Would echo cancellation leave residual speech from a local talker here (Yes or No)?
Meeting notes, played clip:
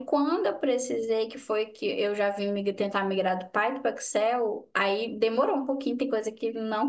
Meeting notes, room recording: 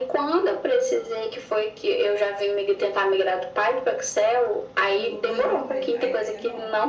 Yes